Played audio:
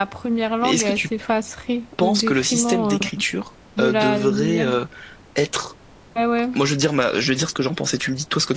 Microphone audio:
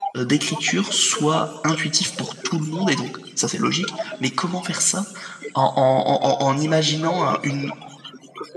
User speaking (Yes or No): Yes